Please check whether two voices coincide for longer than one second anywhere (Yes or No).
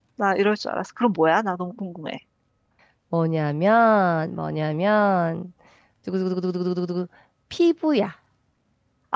No